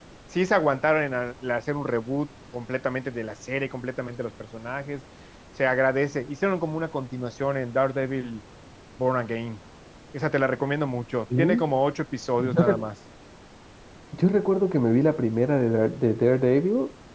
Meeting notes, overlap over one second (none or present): none